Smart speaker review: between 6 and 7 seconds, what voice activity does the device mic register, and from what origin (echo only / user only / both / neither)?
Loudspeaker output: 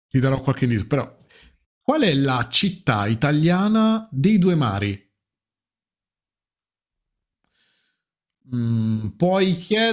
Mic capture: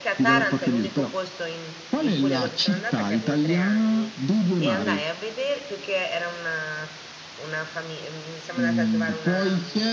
user only